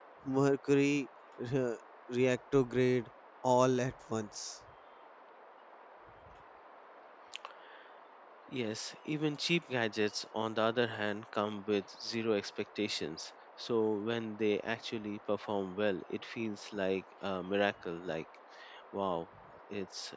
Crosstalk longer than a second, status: none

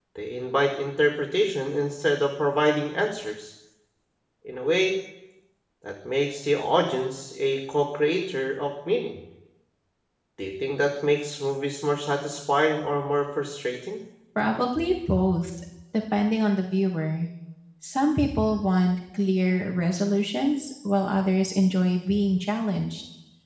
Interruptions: none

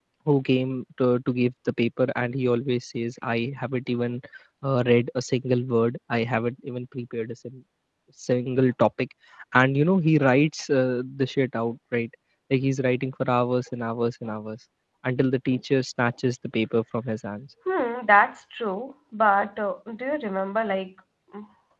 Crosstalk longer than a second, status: none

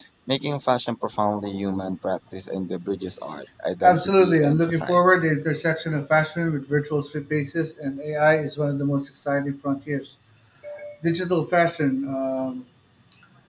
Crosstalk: present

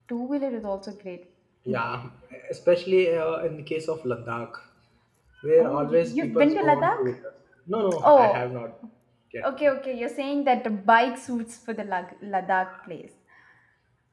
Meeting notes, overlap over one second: present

